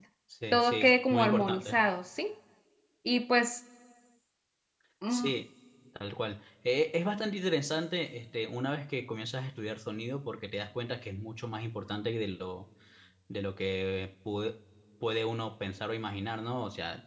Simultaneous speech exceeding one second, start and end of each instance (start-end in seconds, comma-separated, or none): 0.5-1.8